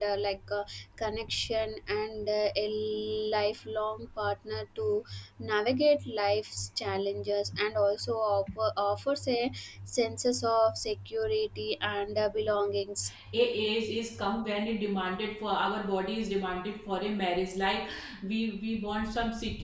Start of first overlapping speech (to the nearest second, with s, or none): none